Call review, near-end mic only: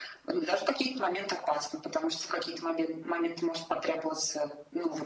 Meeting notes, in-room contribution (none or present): none